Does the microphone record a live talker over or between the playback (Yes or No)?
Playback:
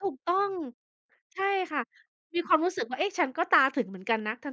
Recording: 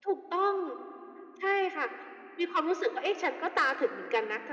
No